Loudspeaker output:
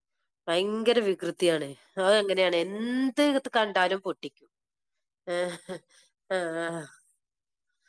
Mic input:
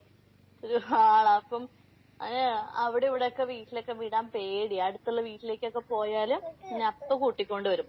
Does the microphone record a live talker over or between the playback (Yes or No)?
Yes